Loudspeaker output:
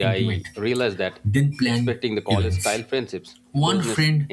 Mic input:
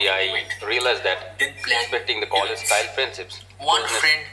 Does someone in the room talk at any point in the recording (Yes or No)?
No